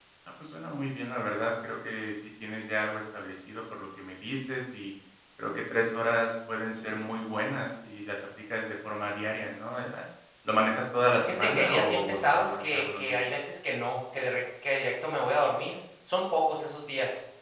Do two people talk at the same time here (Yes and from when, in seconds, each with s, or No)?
Yes, from 11.2 s